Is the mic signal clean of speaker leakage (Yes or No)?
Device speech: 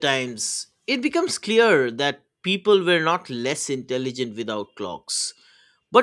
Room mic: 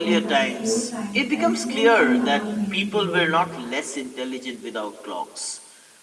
No